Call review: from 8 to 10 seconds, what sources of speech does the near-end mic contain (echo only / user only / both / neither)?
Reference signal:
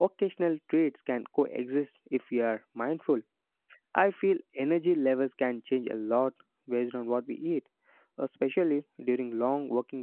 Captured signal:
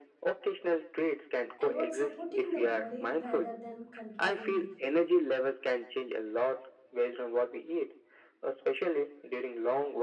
echo only